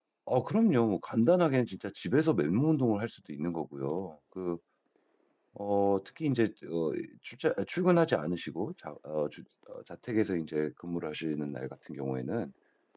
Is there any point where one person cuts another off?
No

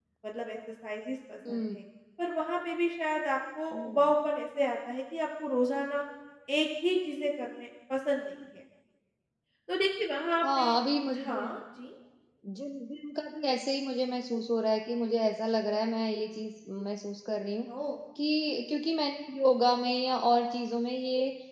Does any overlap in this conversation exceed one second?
No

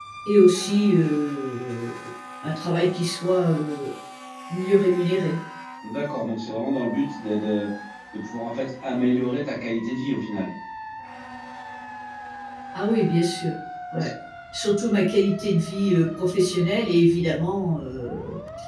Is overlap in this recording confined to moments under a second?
Yes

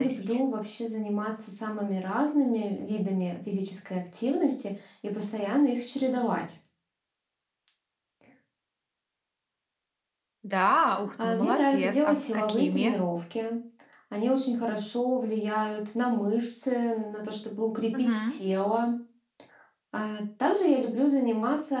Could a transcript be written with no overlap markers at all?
No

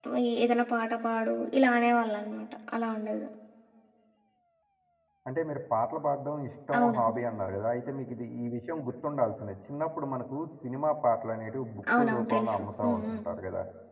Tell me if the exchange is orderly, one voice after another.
No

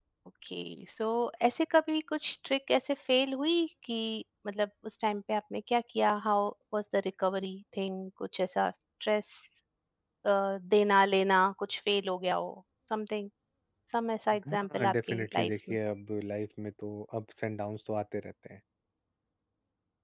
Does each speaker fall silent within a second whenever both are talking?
No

